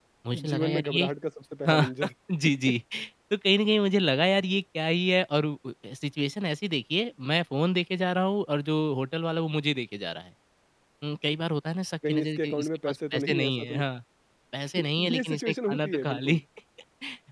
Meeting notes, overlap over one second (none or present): present